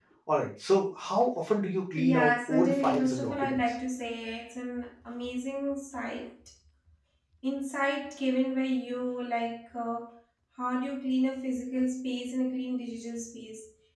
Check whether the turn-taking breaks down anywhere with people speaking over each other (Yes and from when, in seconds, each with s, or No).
Yes, from 2.0 s